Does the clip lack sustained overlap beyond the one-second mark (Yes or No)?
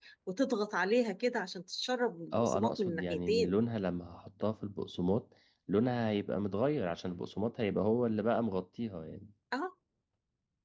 No